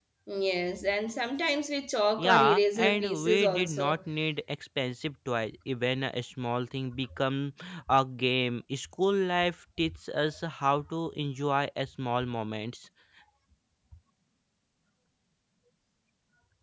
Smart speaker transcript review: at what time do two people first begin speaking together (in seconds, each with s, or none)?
2.2 s